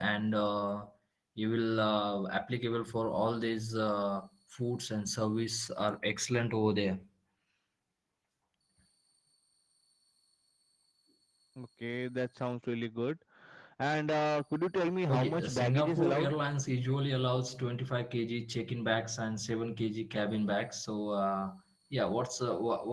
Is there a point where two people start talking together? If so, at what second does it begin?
15.1 s

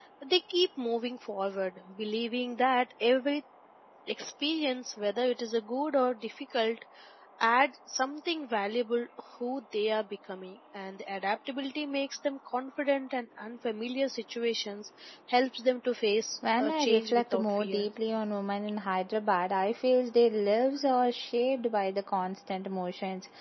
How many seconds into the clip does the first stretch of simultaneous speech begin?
16.4 s

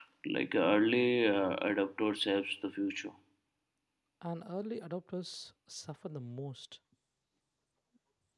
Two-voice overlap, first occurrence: none

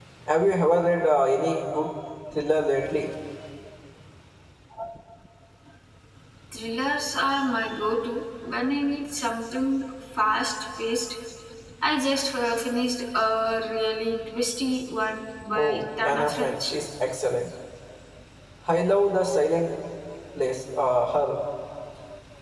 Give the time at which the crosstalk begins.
15.6 s

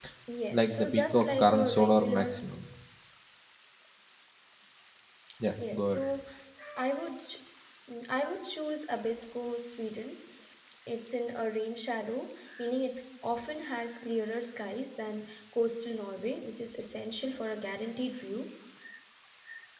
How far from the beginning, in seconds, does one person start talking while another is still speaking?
0.5 s

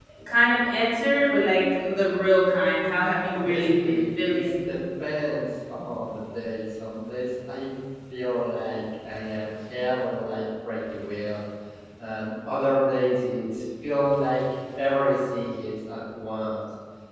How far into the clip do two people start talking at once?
3.3 s

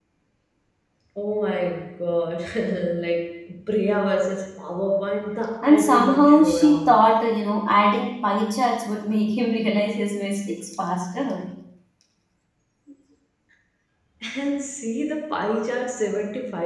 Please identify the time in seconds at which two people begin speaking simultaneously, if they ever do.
5.6 s

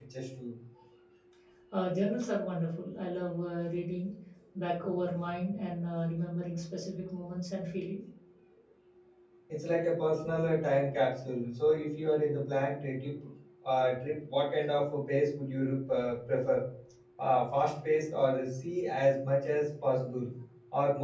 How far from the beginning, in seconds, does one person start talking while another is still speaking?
none

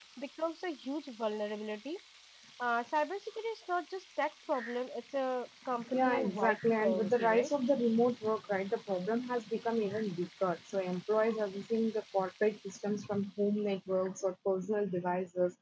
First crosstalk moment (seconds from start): 5.9 s

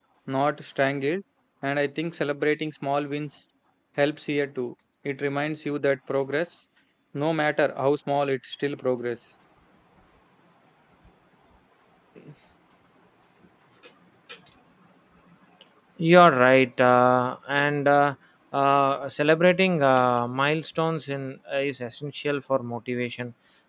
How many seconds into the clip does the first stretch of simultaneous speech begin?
none

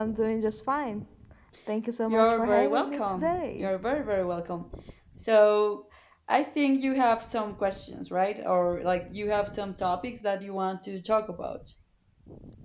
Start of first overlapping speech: 2.1 s

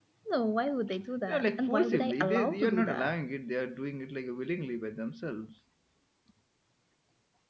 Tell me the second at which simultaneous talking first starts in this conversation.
1.3 s

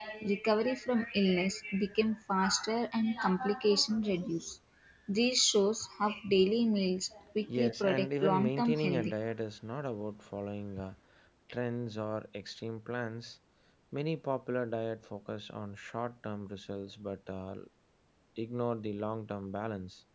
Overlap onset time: 7.5 s

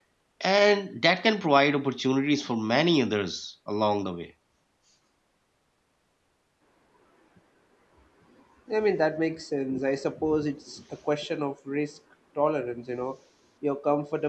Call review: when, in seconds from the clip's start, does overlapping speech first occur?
none

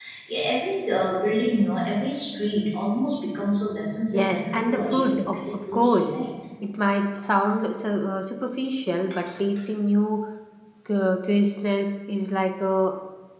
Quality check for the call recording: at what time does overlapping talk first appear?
4.1 s

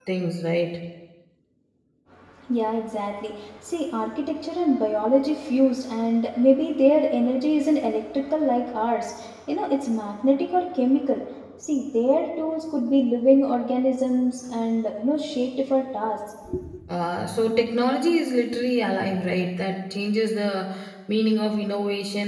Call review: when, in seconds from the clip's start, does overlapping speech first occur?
none

